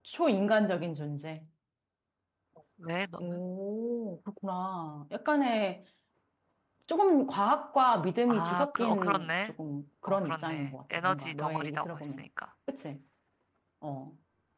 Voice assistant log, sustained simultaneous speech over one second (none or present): present